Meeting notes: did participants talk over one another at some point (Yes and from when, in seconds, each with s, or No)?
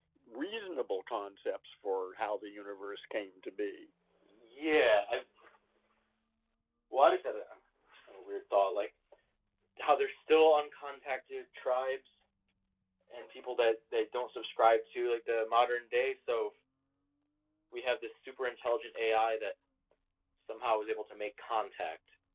No